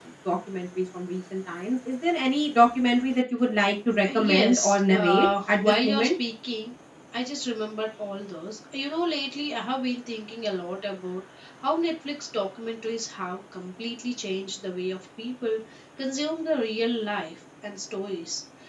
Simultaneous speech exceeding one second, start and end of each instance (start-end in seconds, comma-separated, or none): 4.1-6.1